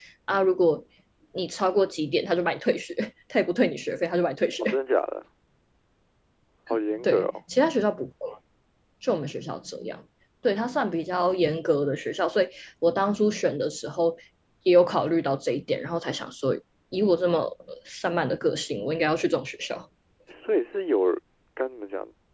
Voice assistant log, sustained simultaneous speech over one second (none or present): none